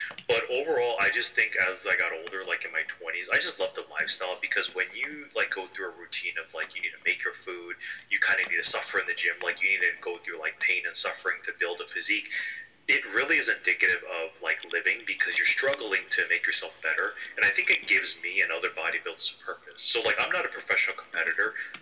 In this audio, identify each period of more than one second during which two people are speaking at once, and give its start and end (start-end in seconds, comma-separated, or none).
none